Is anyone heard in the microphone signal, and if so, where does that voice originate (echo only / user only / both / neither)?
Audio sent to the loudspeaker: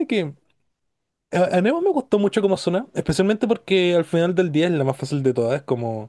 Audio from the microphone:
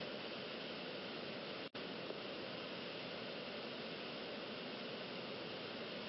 neither